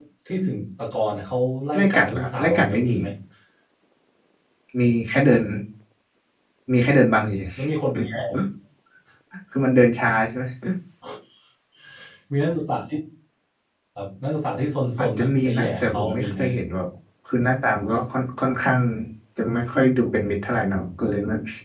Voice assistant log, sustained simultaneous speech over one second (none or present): present